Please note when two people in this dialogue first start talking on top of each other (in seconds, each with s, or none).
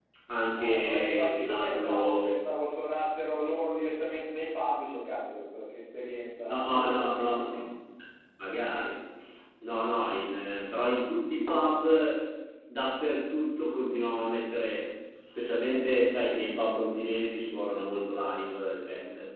0.5 s